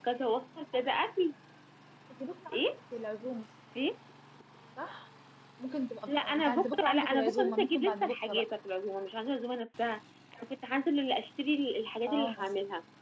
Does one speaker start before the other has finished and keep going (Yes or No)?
Yes